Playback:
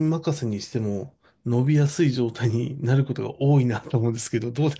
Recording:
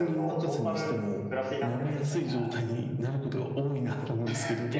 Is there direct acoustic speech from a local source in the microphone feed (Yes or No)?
Yes